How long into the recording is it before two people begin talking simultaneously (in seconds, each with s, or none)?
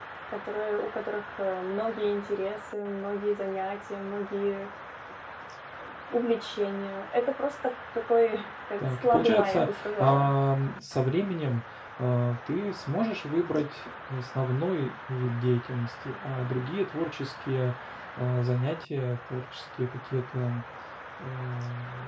8.8 s